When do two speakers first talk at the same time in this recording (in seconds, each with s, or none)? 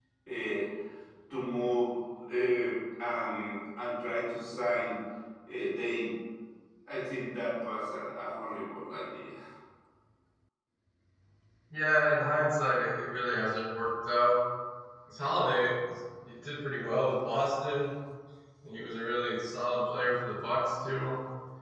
none